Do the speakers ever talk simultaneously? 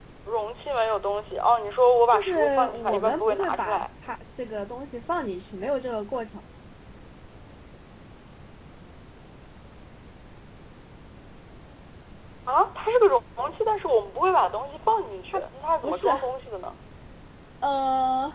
Yes, from 2.1 s

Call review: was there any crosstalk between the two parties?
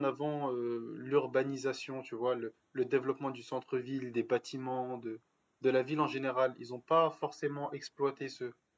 No

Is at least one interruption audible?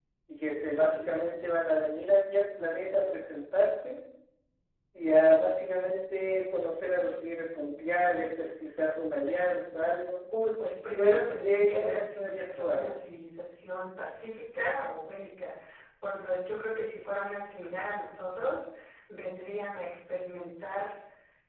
Yes, from 11.0 s

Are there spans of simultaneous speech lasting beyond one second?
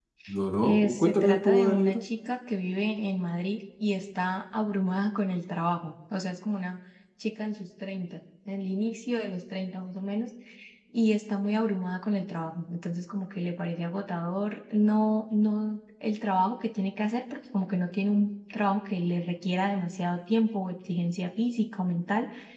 Yes, from 0.6 s

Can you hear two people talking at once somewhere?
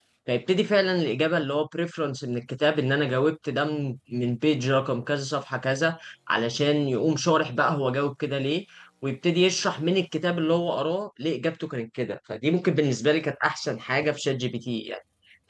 No

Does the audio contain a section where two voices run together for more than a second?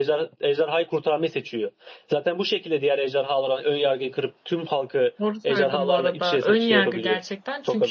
Yes, from 5.4 s

